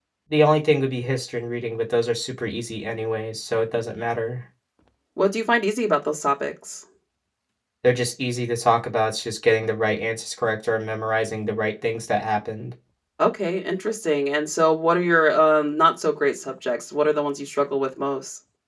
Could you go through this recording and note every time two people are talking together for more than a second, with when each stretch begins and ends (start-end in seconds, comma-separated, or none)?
none